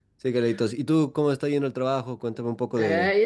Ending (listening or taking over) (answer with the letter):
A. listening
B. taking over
B